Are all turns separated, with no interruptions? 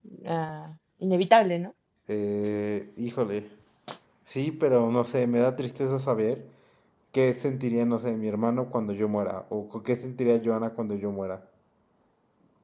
Yes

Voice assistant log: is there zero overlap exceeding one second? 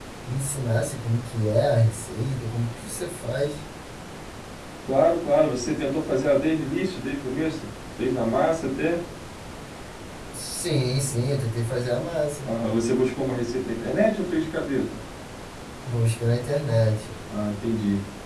Yes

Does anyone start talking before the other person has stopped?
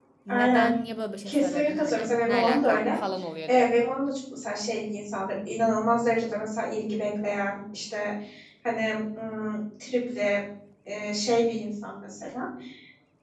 Yes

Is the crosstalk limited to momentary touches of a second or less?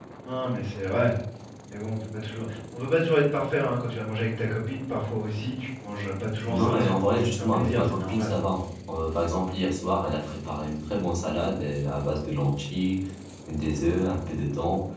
No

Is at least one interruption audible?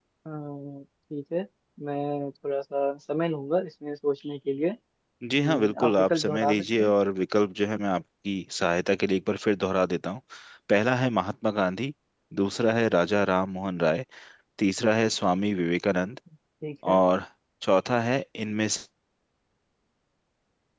Yes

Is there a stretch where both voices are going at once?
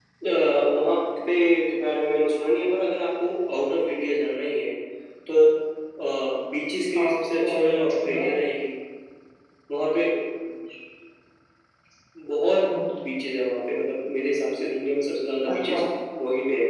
Yes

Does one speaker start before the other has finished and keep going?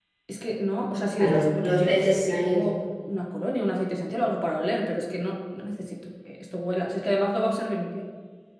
Yes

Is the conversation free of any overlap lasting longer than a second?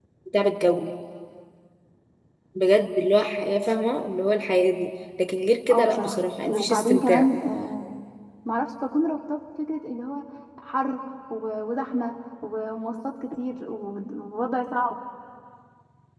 No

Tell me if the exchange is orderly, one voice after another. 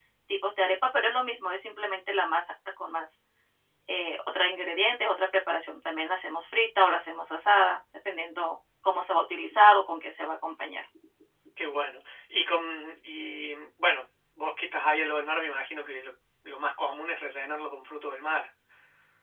Yes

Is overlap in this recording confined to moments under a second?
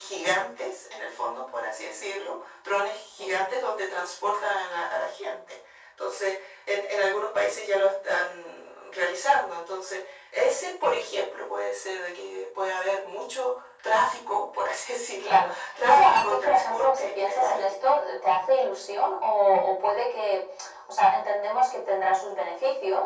No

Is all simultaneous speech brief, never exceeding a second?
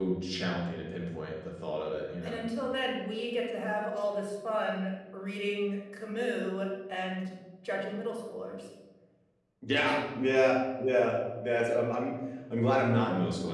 Yes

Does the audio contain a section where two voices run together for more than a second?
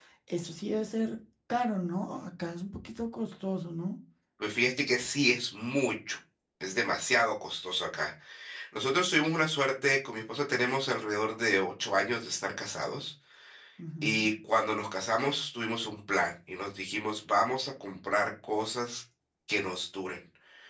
No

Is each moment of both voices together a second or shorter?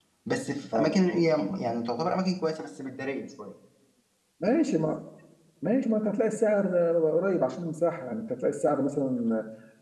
Yes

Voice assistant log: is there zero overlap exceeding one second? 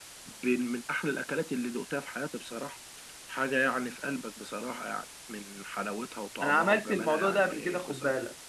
No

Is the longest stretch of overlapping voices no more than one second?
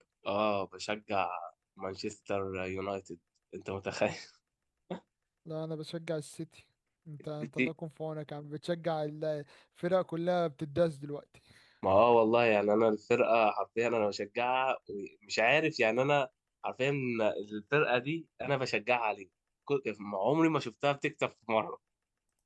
Yes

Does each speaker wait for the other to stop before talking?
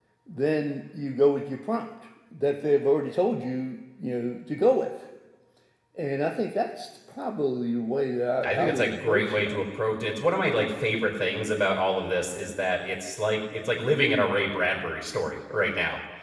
No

